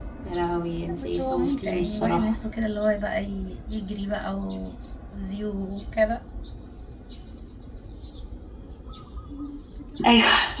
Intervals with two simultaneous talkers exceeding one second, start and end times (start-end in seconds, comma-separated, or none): 0.9-2.3